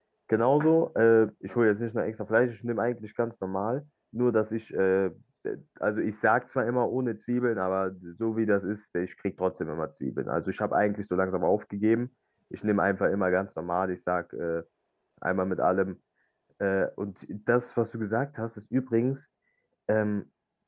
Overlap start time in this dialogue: none

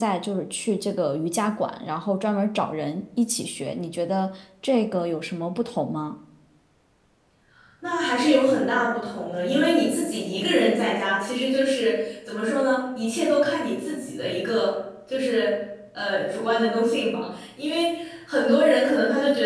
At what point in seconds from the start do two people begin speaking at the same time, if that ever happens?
none

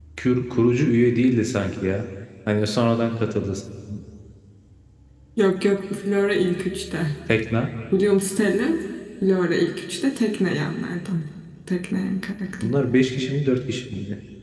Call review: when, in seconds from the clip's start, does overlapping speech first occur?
none

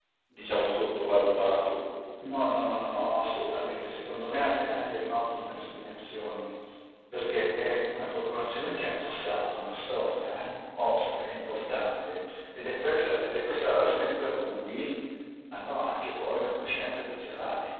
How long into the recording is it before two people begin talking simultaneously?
none

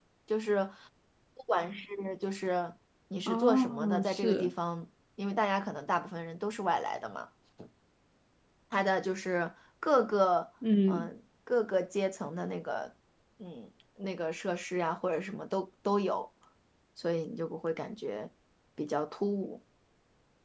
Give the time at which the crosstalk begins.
3.3 s

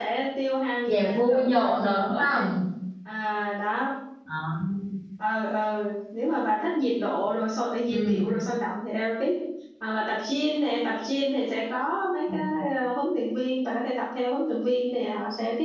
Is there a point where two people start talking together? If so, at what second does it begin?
0.9 s

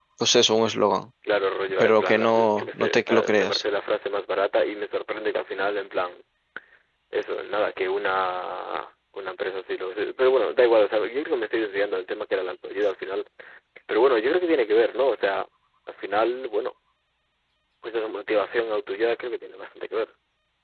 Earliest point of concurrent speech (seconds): 1.8 s

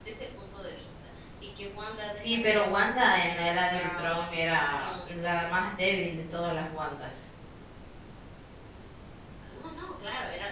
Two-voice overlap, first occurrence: 2.2 s

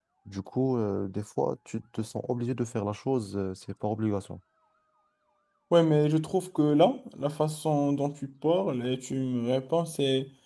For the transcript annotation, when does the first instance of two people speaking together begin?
none

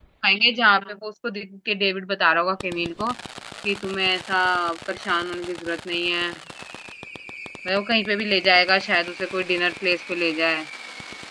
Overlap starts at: none

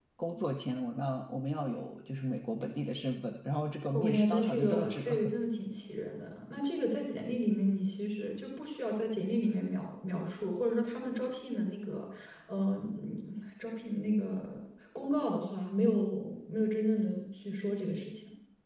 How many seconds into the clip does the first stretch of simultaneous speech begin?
3.9 s

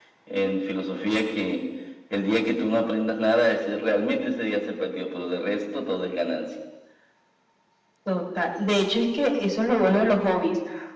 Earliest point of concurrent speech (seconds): none

